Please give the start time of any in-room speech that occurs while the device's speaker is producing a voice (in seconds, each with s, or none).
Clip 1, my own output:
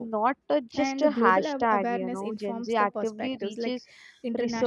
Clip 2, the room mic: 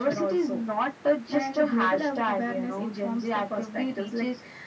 none